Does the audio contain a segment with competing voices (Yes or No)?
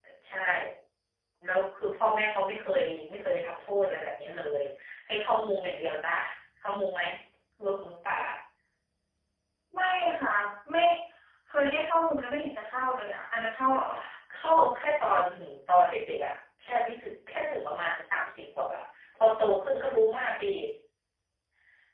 No